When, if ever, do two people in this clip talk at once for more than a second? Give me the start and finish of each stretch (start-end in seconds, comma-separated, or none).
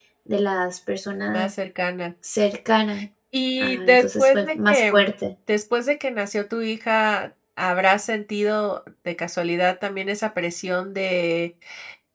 3.6-5.1